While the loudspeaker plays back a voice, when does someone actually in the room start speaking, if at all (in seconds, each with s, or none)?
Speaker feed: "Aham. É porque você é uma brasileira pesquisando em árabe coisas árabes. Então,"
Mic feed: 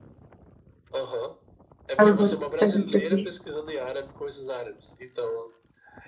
2.0 s